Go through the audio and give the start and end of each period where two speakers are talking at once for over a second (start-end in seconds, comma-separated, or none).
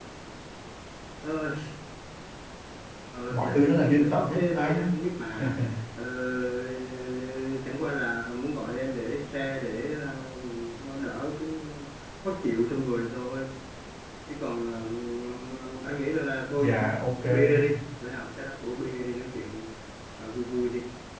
3.3-4.9